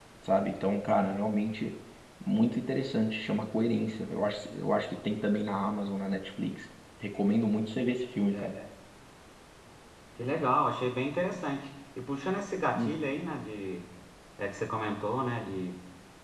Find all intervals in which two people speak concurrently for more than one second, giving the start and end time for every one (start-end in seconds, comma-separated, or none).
none